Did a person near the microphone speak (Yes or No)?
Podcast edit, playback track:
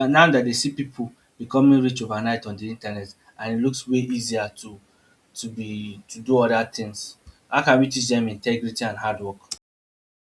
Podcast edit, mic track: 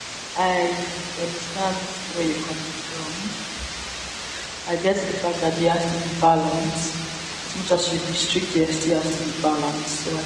Yes